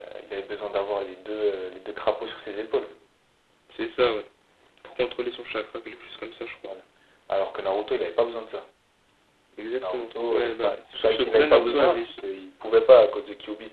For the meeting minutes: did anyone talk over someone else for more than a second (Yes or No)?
Yes